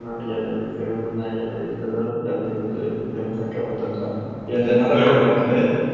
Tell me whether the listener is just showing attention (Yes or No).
Yes